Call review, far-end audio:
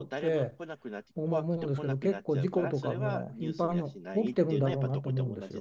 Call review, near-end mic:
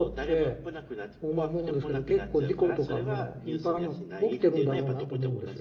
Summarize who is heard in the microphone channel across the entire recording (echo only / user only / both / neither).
echo only